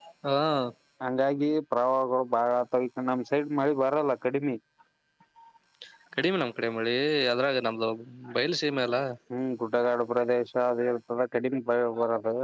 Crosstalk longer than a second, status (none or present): none